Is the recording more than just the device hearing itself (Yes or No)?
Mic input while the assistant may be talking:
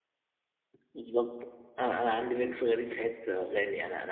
Yes